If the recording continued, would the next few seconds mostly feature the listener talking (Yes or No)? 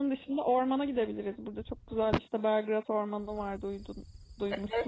Yes